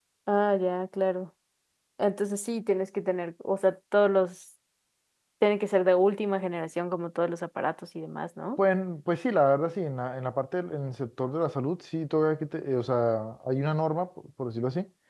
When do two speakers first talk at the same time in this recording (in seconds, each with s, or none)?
none